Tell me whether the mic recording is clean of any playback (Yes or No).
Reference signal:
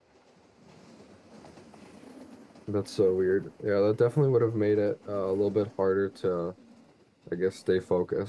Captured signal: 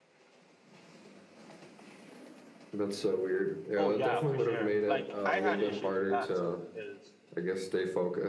No